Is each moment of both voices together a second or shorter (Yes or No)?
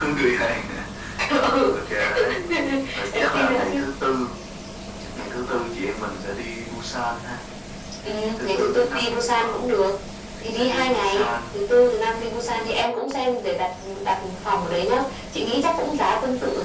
No